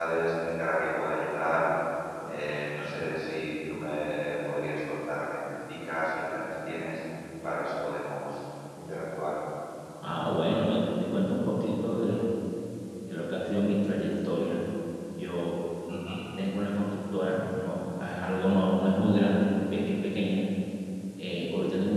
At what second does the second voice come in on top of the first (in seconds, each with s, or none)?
none